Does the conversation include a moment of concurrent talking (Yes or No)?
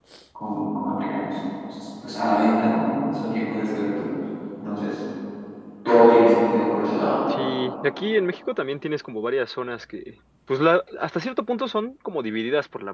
No